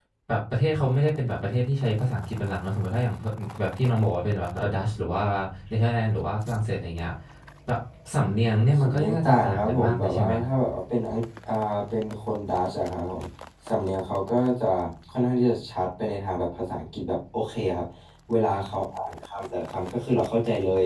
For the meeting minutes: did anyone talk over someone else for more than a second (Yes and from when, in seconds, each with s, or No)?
Yes, from 8.8 s